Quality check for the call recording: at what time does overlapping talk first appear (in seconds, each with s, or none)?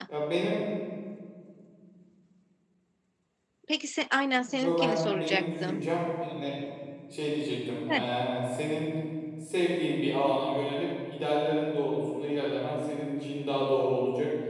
4.6 s